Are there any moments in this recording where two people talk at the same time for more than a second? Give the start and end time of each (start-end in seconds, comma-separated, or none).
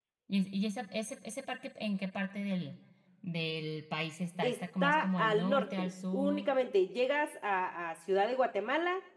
4.4-6.5